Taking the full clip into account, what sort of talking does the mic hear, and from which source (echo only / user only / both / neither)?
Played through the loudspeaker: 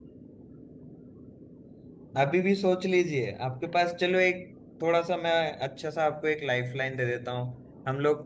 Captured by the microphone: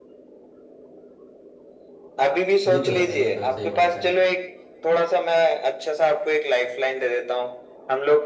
both